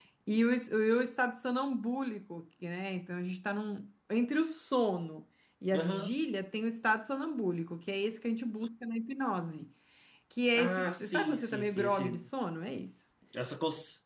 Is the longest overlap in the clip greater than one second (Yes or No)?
Yes